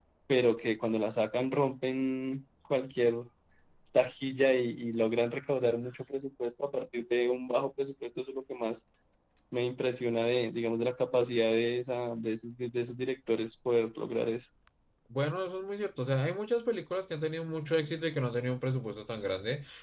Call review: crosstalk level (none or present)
none